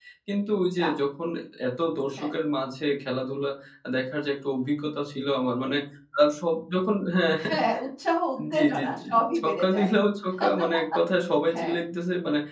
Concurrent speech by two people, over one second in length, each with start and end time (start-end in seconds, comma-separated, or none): 8.5-9.9